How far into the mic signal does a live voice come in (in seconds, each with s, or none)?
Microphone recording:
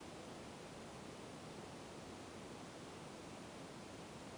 none